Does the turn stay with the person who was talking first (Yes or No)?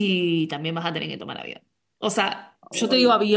Yes